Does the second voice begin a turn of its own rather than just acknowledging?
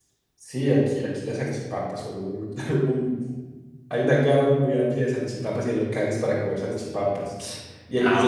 No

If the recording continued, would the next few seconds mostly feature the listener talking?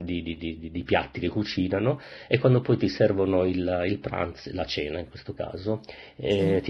No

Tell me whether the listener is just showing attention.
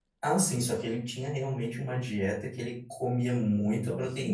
Yes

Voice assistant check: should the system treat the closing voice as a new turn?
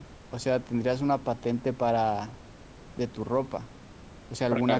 No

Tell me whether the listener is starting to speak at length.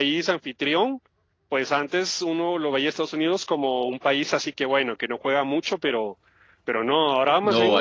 Yes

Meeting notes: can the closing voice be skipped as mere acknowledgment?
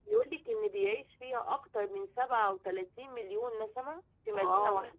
No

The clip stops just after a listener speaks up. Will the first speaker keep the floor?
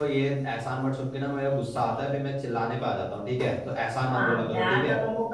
No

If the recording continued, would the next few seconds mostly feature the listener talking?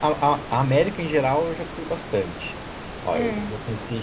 No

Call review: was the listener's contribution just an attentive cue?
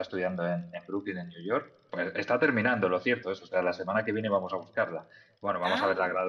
Yes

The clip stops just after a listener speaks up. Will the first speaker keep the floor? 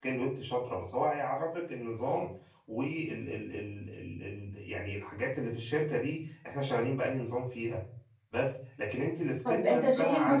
No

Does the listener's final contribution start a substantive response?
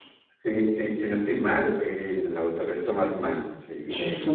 No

